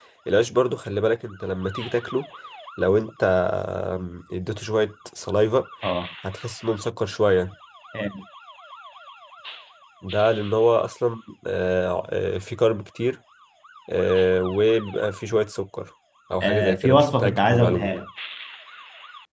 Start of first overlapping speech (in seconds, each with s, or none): 16.4 s